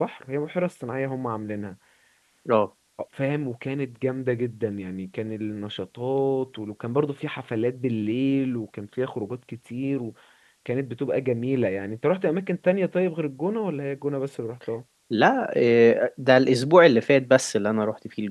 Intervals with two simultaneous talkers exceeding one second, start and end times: none

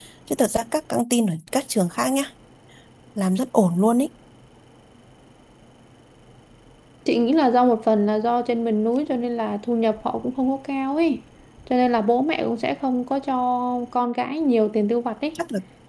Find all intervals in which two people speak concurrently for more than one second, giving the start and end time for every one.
none

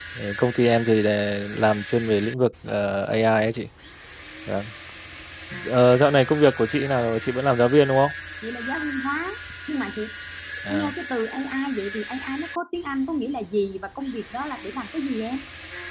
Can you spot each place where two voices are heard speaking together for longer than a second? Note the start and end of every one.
none

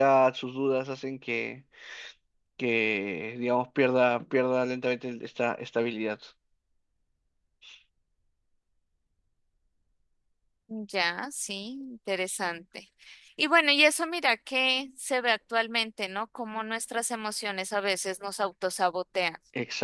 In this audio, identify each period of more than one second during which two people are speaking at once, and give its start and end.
none

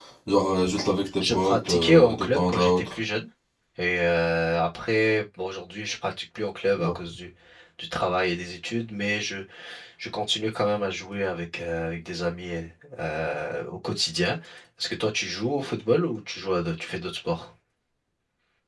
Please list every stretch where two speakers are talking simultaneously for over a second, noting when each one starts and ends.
1.2-3.0

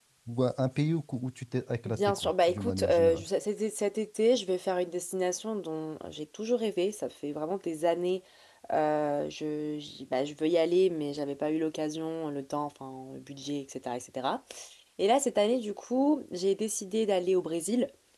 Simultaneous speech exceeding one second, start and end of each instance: 1.9-3.2

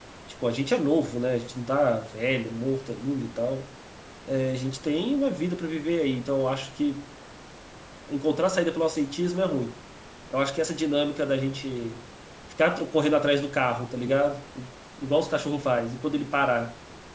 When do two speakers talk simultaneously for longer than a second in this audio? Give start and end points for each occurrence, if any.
none

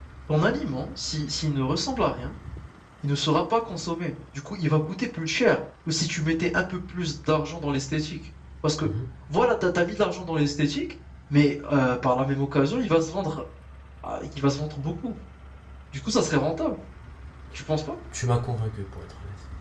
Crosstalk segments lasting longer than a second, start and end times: none

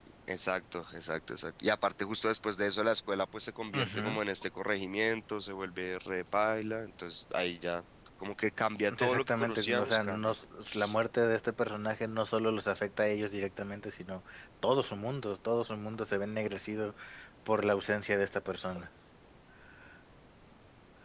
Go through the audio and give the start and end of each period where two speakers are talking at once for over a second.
9.0-10.2

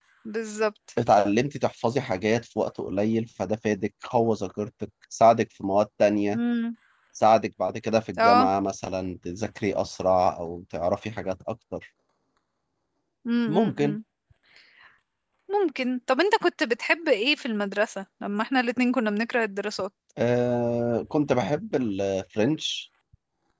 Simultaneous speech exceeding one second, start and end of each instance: none

